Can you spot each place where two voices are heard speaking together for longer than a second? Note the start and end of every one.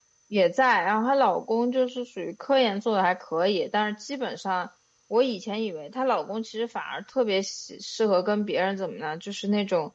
none

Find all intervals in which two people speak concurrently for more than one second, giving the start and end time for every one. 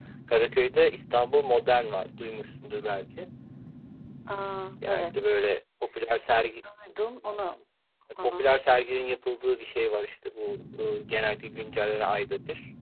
none

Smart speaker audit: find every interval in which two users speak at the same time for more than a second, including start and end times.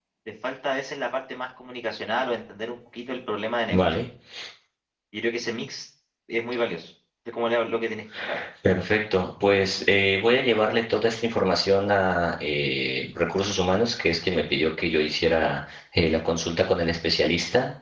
none

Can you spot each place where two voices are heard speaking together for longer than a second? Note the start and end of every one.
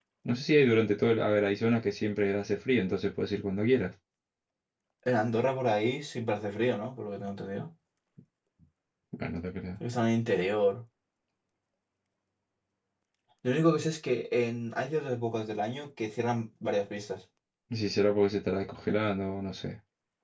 none

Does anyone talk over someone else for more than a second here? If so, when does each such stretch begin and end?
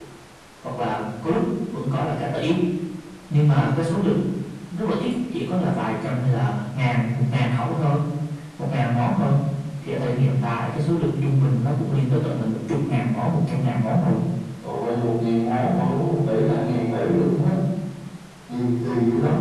none

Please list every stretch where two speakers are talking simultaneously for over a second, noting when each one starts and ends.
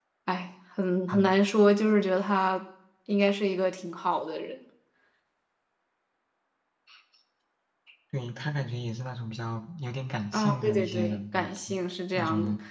10.3-11.8

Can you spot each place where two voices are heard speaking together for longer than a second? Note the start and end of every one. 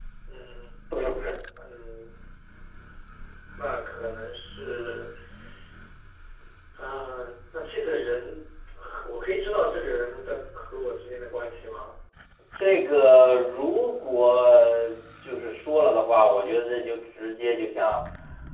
none

